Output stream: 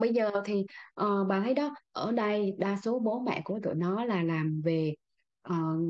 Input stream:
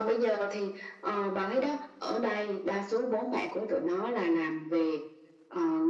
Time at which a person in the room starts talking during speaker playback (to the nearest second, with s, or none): none